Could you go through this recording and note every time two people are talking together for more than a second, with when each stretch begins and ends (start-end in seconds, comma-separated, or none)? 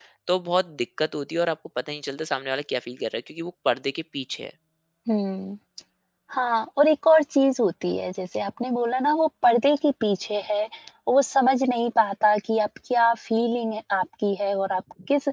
none